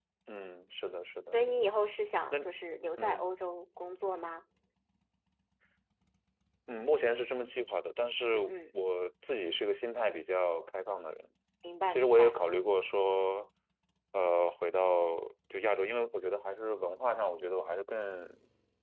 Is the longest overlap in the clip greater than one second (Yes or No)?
No